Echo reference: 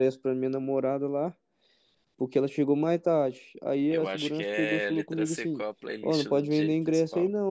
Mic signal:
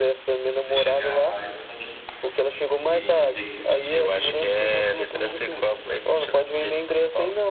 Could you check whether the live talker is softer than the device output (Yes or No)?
Yes